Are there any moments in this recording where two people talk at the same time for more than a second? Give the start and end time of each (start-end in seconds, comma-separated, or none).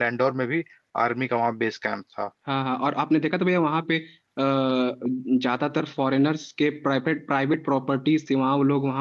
none